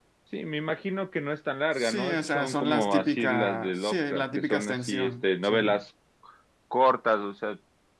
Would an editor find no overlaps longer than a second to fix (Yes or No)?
No